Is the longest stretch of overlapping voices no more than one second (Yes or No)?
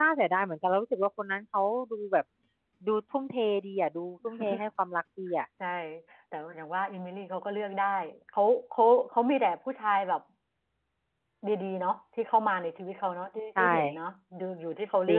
Yes